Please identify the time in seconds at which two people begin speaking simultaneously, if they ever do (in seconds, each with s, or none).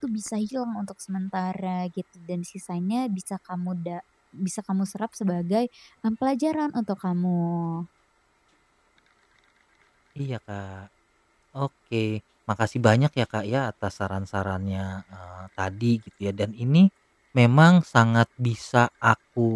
none